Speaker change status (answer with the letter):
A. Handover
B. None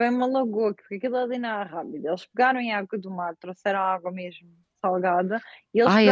B